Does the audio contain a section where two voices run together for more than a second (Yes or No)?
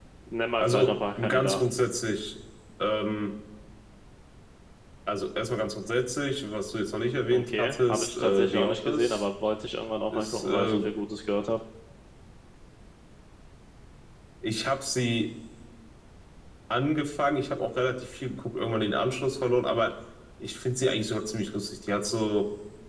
Yes